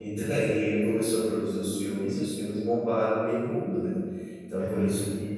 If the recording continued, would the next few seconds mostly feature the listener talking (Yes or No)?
No